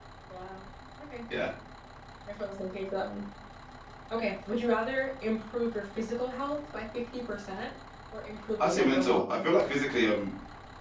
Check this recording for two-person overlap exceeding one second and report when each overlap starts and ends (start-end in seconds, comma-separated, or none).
8.6-10.0